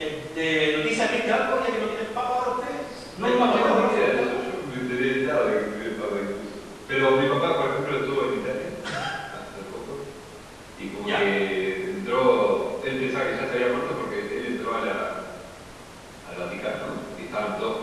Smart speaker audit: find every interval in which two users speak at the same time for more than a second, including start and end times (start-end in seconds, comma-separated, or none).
3.2-4.4